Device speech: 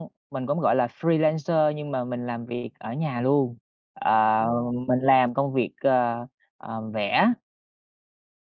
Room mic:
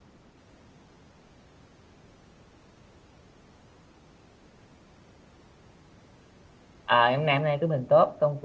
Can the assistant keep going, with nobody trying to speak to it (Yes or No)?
No